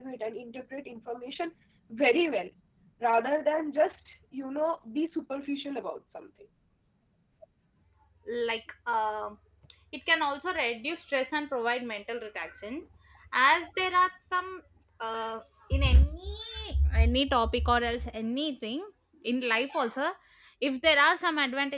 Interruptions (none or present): none